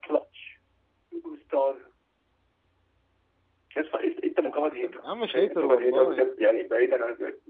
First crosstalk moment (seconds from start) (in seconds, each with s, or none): 4.7 s